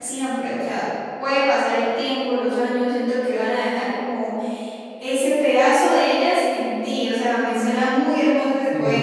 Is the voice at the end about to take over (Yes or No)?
Yes